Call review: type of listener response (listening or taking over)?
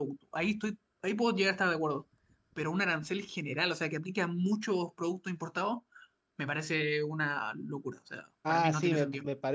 taking over